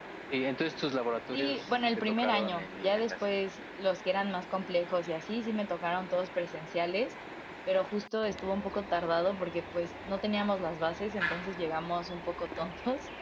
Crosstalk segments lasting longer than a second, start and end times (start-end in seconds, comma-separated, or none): 1.3-3.1